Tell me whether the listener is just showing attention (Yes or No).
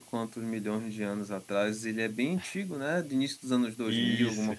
No